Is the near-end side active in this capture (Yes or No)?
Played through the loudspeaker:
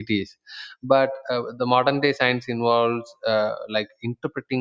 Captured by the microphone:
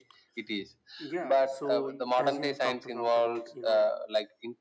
Yes